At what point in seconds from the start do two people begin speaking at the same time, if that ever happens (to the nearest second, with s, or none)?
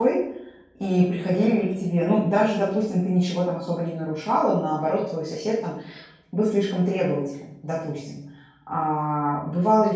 none